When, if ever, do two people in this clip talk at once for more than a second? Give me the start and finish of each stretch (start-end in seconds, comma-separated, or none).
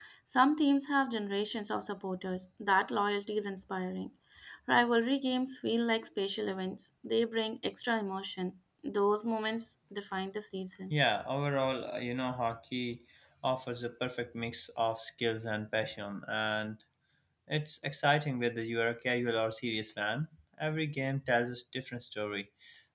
none